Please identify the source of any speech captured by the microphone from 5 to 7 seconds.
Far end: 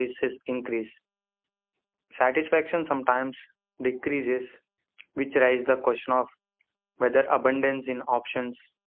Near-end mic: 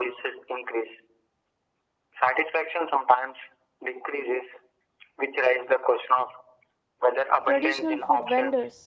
echo only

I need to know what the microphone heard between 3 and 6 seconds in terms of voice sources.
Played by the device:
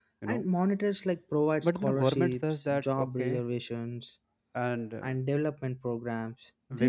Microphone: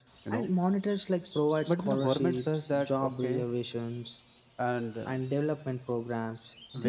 echo only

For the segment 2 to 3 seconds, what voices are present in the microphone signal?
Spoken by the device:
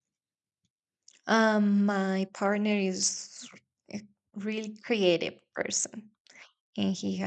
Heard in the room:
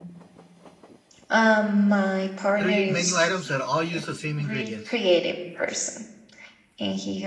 both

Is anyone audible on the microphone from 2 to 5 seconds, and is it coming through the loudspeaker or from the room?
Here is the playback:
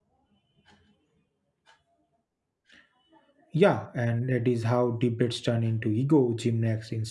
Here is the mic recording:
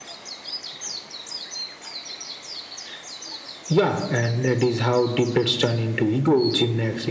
echo only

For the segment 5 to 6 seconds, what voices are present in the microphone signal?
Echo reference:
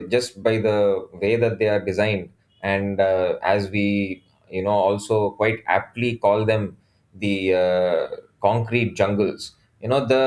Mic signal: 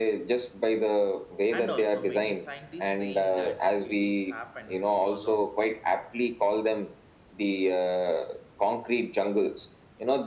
both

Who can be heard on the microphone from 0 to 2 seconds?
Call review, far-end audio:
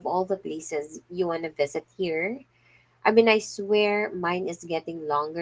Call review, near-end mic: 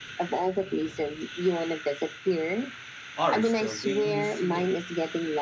echo only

